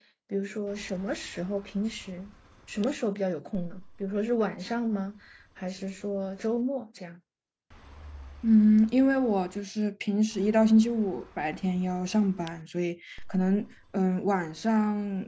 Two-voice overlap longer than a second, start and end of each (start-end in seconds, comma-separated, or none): none